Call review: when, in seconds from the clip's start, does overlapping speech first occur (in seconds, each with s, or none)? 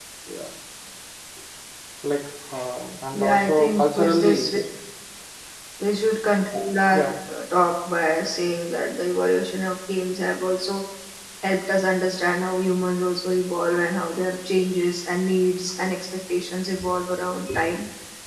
3.1 s